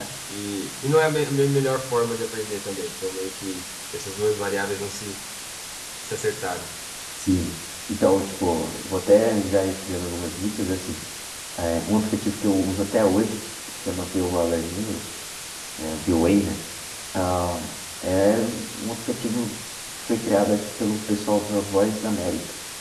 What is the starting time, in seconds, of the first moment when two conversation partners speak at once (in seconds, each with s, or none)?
none